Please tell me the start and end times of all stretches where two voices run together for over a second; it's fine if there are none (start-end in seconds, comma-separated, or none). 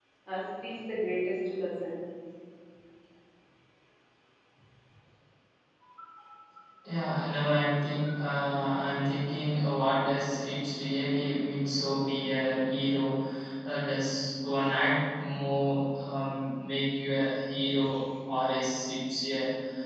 none